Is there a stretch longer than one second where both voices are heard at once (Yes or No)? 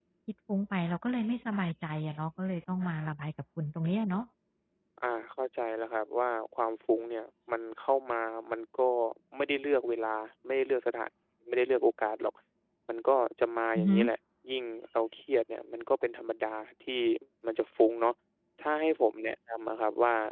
No